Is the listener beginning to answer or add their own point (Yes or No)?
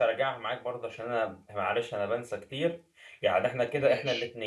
No